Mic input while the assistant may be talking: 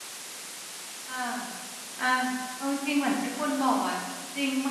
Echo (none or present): none